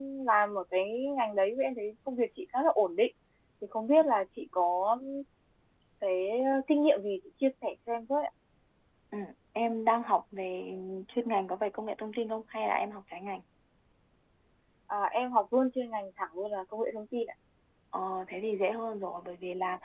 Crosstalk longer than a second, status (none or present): none